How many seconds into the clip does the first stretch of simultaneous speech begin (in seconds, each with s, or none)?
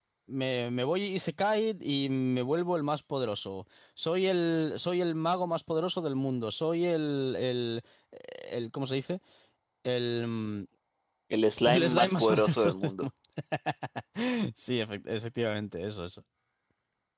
11.7 s